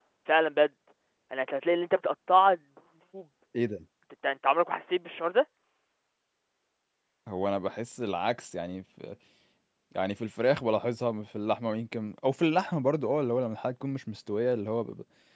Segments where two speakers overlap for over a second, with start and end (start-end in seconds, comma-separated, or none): none